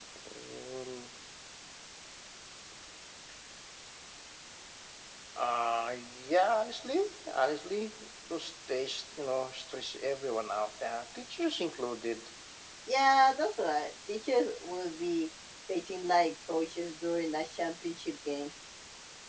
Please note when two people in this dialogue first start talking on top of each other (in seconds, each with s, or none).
none